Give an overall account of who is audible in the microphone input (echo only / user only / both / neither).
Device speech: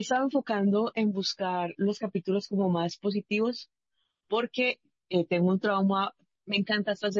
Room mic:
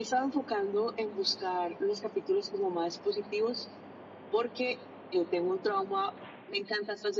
echo only